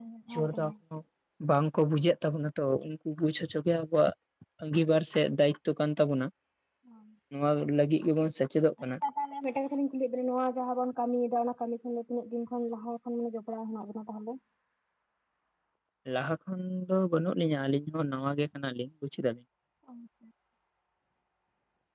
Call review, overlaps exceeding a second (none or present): none